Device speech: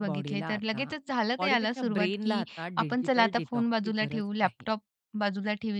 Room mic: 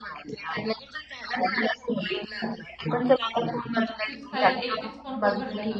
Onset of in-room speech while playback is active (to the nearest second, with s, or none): 4 s